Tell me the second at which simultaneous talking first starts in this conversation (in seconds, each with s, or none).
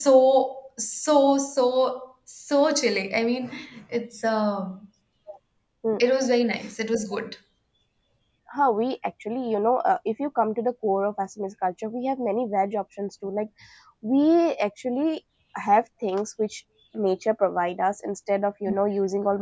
none